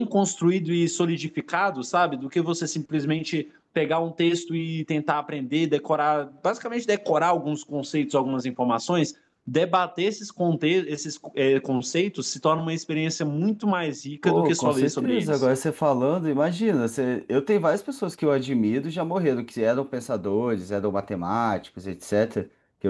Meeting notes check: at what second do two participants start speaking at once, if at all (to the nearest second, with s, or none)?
14 s